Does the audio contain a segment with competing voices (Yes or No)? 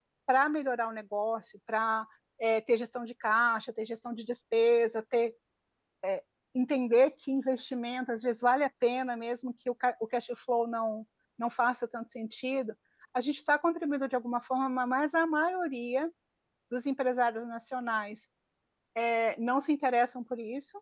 No